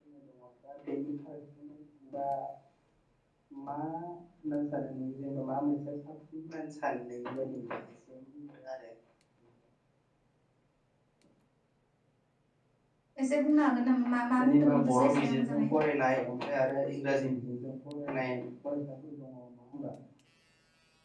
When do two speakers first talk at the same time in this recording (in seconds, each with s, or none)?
14.4 s